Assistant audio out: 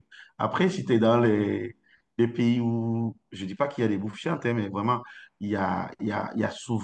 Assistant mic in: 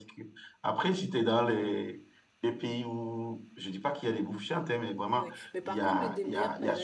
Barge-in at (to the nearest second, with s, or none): 5 s